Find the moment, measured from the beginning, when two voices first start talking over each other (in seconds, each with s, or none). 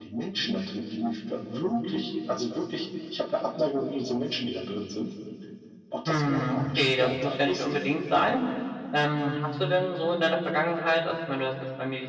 6.0 s